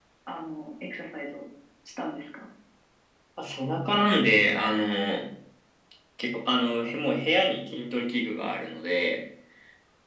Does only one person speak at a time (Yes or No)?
Yes